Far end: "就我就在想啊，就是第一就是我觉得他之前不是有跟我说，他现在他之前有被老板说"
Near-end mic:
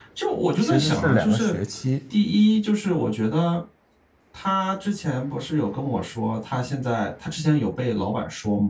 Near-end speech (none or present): present